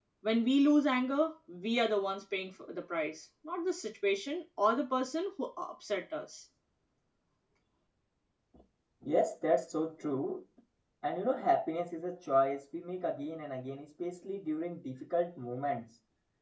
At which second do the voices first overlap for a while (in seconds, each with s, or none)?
none